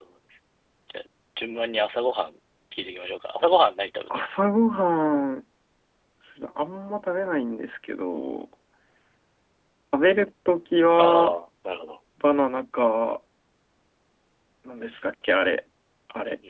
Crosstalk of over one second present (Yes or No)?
No